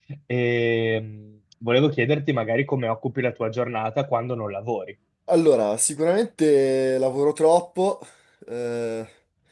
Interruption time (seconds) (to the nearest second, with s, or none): none